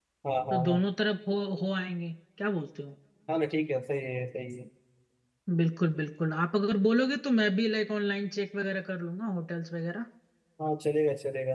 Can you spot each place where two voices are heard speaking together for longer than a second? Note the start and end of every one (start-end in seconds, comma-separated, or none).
none